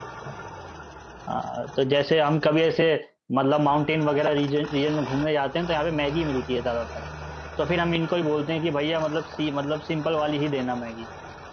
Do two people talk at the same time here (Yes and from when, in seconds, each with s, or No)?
No